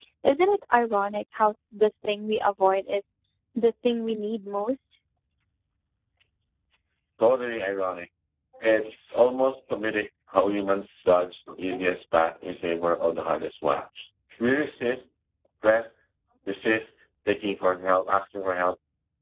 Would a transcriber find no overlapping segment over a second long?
Yes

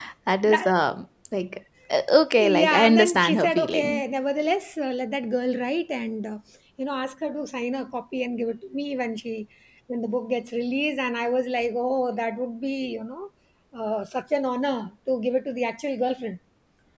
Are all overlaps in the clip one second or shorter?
No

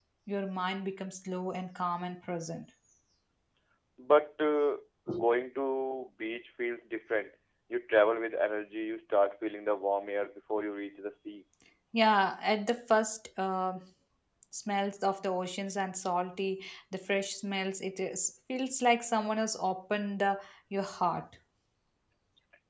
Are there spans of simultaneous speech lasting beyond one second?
No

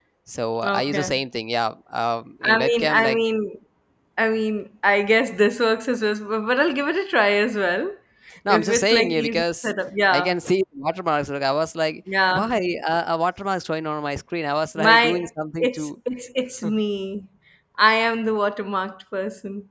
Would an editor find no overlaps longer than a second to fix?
No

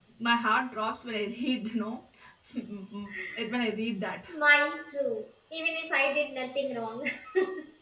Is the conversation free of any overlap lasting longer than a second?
Yes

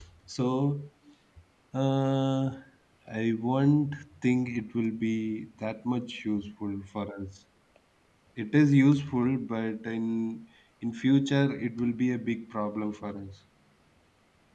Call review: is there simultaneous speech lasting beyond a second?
No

